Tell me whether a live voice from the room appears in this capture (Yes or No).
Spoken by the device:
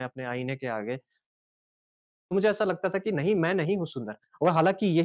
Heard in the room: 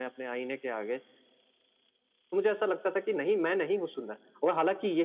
No